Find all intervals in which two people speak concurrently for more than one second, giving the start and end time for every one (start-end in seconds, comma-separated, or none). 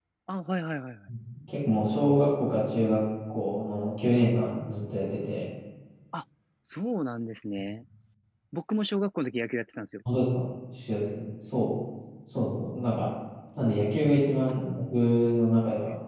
none